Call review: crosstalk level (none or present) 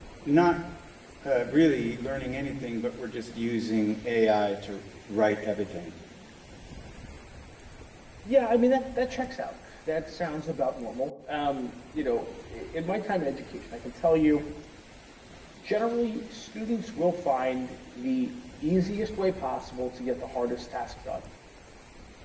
none